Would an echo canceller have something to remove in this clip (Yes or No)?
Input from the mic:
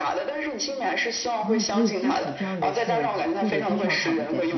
Yes